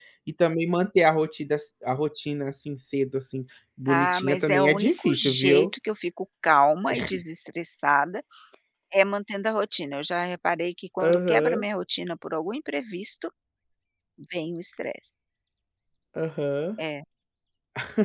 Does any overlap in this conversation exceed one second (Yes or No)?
Yes